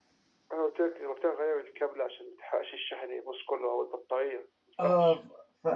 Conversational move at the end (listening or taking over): taking over